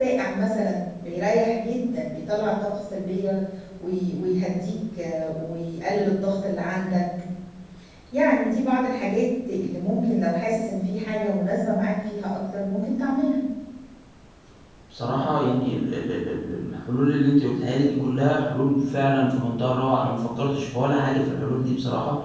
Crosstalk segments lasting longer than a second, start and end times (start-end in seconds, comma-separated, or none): none